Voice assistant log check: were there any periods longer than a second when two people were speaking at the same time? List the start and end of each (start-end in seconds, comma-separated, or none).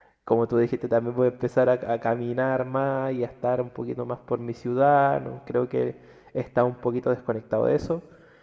none